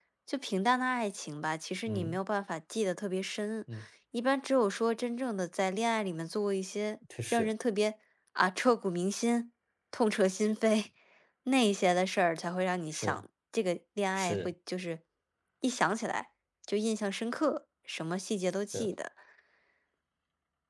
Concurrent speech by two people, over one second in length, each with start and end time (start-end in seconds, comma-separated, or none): none